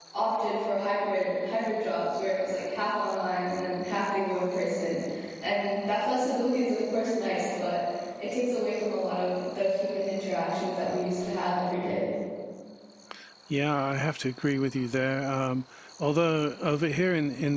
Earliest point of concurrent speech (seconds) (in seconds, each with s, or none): none